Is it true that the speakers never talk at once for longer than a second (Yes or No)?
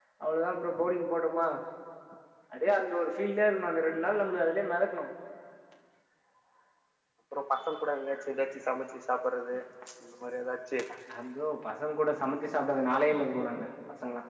Yes